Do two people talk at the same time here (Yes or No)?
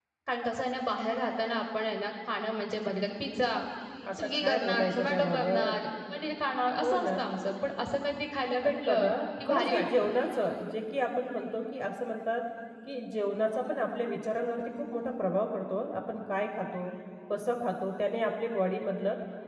Yes